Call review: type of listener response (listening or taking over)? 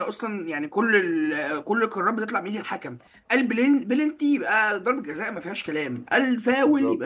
listening